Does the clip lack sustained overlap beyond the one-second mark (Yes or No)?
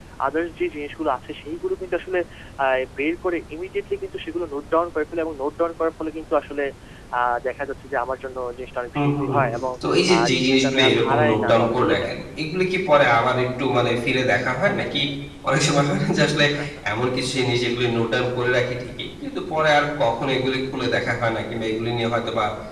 No